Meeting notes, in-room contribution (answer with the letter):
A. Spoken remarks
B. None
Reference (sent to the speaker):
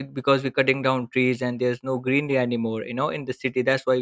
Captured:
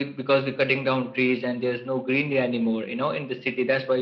B